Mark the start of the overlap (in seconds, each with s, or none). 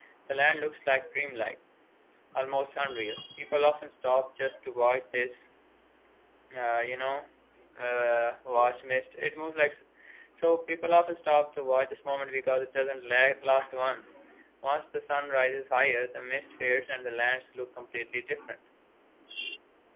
none